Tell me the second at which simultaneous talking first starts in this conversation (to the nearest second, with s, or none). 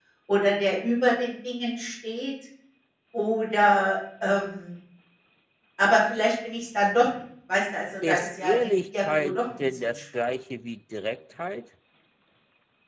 8 s